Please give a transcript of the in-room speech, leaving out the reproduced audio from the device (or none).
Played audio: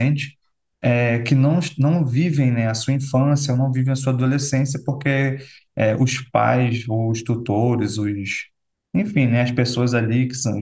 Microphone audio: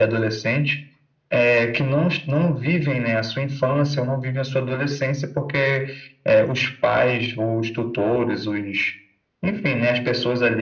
none